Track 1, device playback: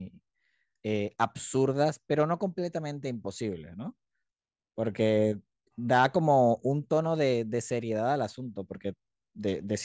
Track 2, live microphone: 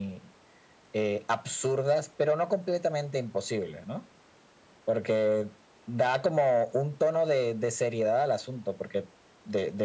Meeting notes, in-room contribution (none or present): none